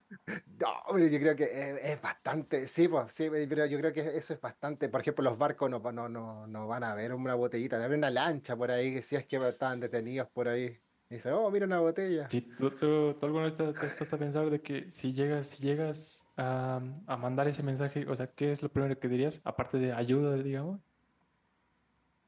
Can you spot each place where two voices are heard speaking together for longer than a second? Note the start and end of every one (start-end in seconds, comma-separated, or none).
none